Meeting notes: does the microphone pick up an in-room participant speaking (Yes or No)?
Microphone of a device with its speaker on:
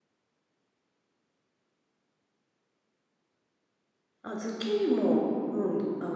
Yes